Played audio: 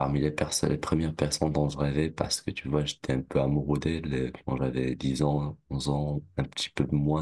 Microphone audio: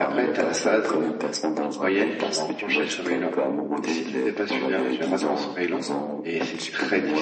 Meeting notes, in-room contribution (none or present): present